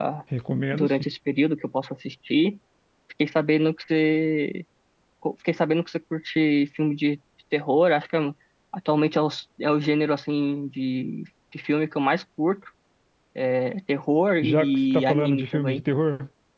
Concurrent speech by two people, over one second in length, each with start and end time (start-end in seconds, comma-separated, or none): 14.4-15.8